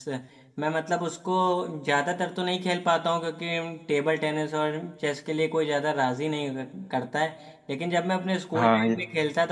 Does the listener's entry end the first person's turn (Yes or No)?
No